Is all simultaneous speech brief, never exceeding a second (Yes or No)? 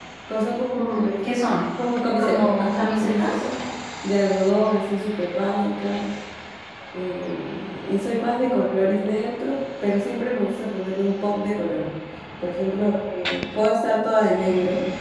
No